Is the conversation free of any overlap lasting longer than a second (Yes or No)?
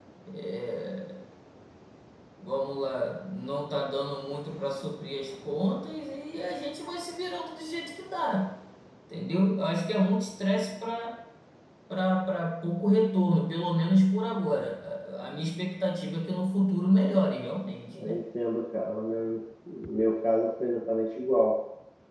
Yes